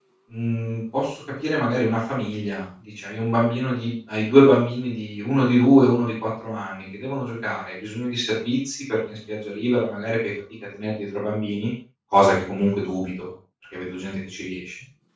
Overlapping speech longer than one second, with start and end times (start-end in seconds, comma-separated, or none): none